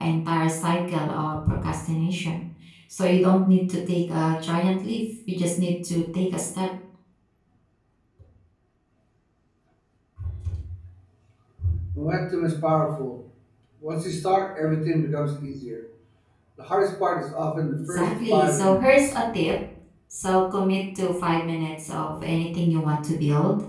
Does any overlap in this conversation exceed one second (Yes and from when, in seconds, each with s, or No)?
Yes, from 17.8 s